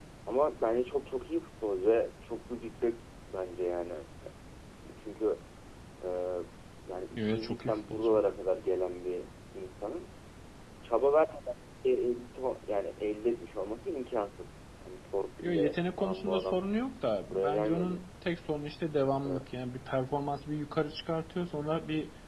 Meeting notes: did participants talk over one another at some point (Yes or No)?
Yes